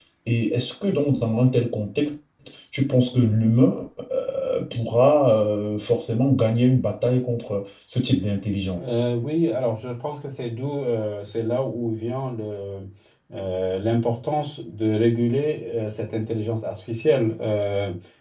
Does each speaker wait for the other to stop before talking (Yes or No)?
Yes